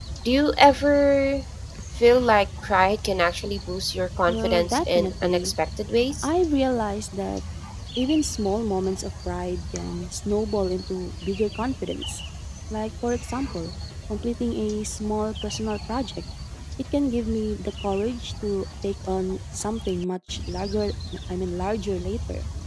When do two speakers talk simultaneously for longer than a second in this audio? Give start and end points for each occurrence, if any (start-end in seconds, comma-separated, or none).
4.3-5.5